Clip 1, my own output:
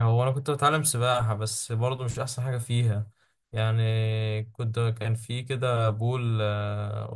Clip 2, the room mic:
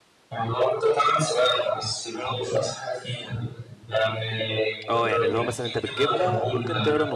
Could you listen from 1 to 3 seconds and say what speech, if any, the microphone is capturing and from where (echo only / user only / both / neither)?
echo only